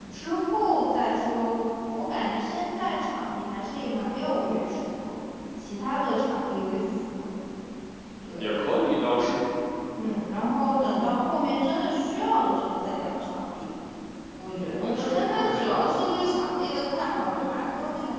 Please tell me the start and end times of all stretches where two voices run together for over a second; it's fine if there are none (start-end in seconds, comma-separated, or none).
14.8-16.4